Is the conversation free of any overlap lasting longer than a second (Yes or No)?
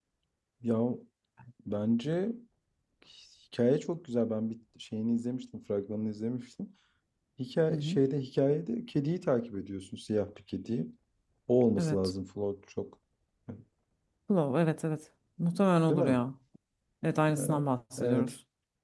Yes